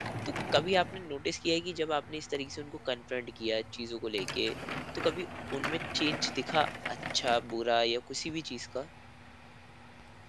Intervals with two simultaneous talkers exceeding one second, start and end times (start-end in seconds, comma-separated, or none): none